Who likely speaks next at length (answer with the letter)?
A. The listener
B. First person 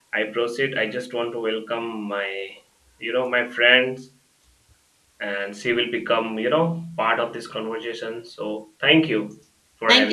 A